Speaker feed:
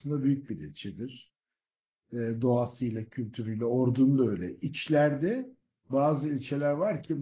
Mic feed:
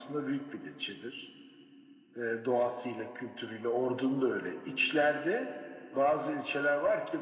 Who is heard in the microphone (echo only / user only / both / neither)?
echo only